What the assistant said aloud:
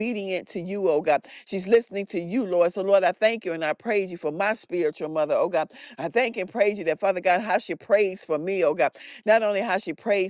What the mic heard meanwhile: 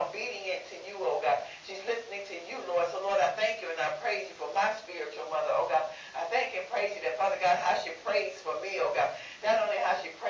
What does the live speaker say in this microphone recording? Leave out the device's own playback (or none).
none